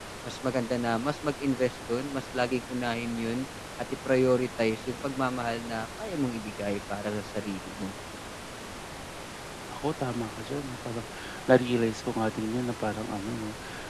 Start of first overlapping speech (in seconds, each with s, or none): none